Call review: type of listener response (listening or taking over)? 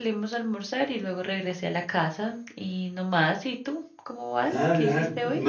taking over